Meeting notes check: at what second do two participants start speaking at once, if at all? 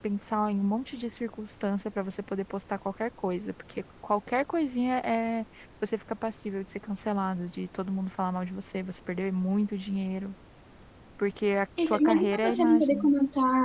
11.9 s

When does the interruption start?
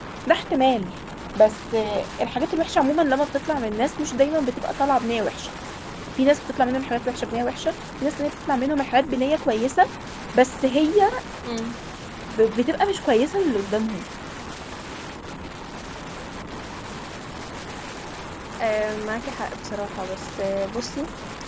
none

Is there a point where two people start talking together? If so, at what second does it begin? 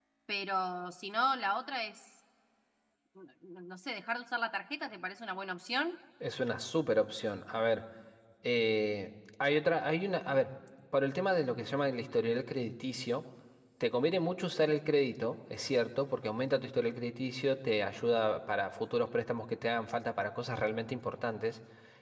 none

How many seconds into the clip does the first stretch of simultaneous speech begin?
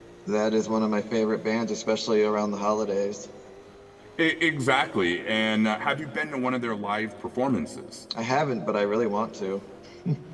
none

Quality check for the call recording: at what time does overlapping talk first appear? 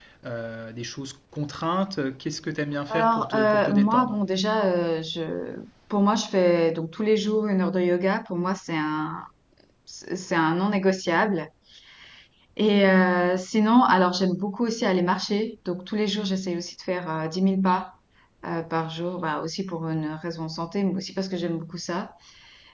2.9 s

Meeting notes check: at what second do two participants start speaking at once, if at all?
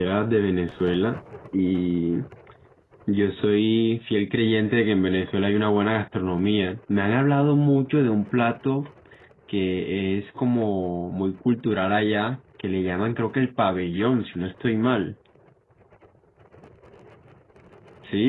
none

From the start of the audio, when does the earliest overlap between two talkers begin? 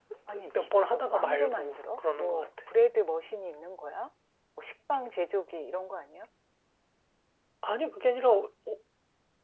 0.5 s

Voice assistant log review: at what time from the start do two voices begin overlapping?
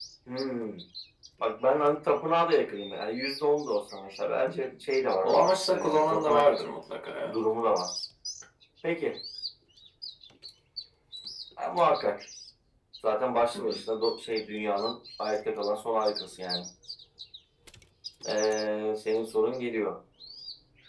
5.2 s

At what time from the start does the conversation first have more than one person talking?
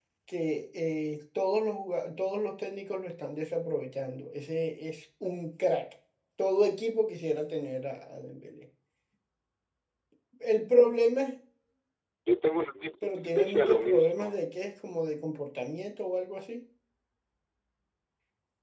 13.0 s

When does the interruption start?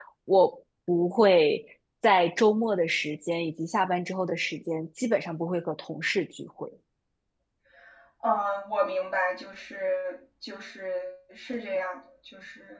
none

